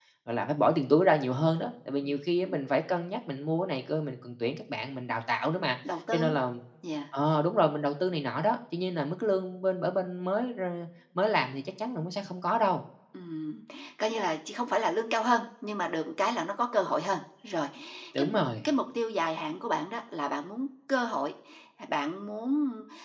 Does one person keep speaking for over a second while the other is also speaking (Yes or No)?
No